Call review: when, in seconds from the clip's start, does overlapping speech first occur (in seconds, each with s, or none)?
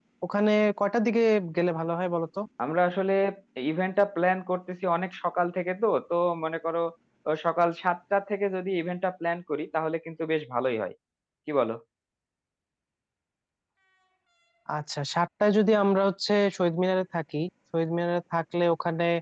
none